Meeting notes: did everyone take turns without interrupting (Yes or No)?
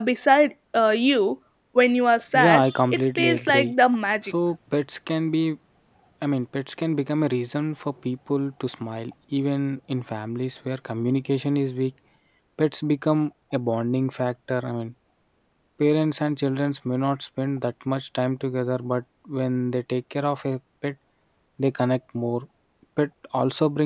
No